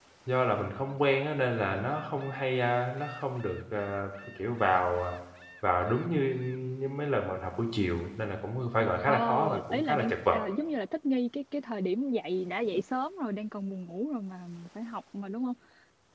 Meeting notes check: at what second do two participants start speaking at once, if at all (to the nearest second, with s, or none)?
9 s